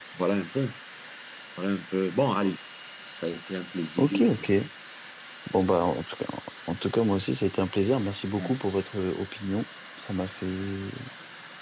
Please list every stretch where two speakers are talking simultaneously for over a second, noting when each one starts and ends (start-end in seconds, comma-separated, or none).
none